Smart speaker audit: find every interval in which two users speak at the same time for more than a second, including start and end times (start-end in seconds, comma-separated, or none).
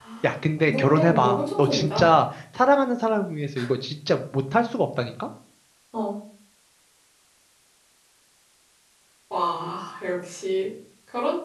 0.7-2.0